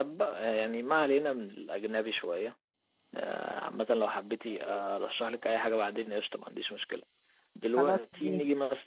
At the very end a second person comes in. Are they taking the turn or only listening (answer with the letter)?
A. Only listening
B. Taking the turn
A